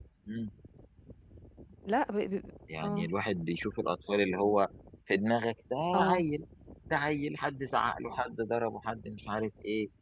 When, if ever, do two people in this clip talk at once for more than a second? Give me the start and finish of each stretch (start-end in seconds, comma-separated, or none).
none